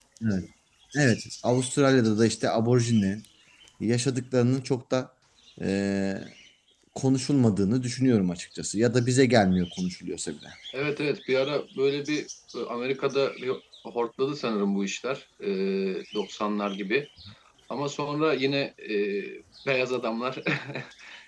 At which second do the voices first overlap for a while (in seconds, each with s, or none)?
none